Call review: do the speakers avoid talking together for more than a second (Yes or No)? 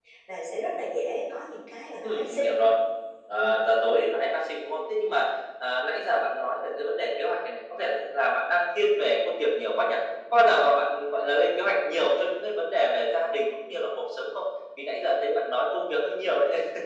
Yes